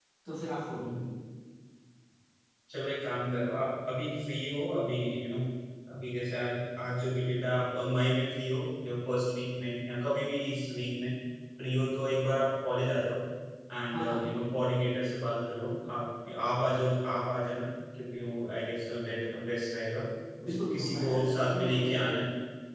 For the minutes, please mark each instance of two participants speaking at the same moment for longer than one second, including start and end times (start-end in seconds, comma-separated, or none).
20.4-22.0